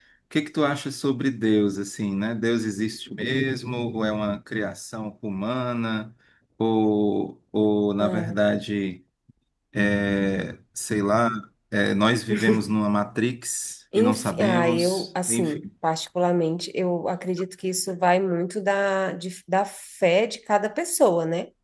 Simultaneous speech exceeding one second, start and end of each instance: 13.9-15.7

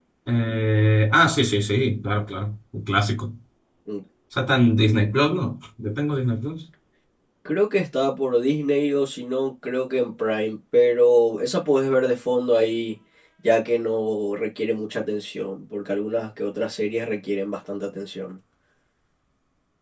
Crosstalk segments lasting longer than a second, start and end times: none

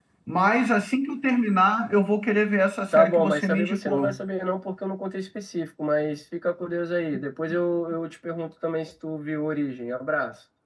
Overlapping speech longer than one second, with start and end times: 2.9-4.2

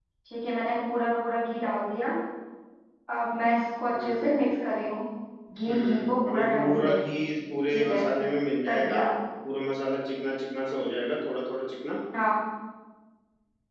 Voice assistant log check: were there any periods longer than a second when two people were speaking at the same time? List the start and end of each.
5.7-7.0

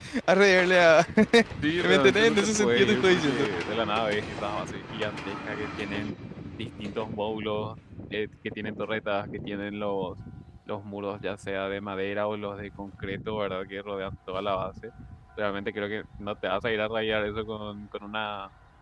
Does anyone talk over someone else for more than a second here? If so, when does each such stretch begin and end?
1.8-3.3

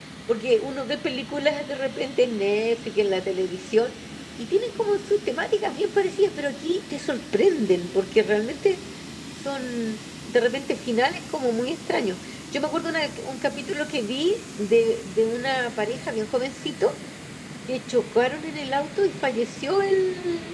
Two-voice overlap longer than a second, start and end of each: none

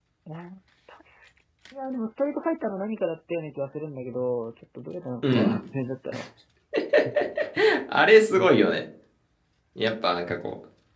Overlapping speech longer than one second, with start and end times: none

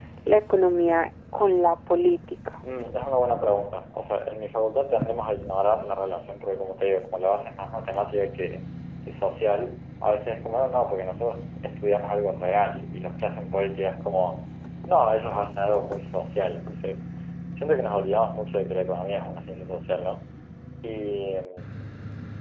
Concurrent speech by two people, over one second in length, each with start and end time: none

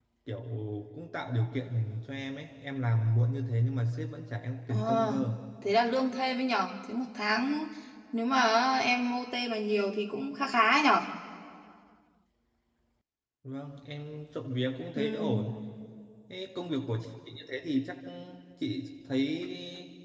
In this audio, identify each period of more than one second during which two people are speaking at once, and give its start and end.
none

